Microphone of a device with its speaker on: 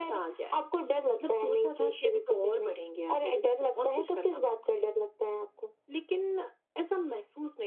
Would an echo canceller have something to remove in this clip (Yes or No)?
Yes